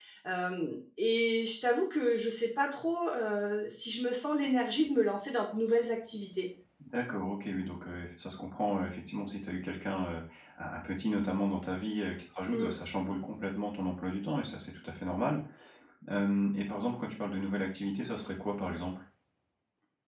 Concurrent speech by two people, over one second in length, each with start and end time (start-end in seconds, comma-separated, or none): none